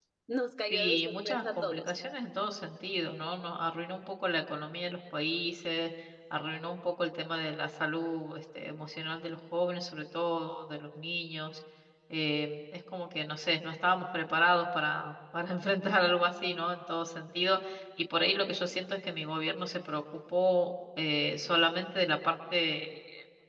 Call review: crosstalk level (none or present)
present